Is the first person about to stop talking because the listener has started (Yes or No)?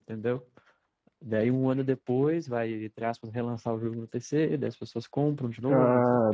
Yes